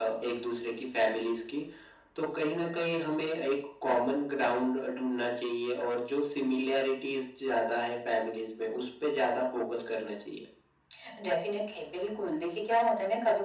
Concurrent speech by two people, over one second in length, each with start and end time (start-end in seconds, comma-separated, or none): none